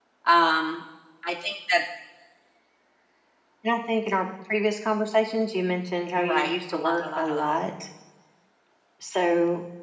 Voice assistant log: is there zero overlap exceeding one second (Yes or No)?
No